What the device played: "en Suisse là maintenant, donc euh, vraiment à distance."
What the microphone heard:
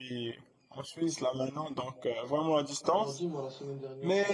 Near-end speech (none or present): present